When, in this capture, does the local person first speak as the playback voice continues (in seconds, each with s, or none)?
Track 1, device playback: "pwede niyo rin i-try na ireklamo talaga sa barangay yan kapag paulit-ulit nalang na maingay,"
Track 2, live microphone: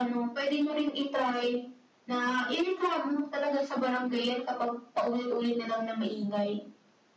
none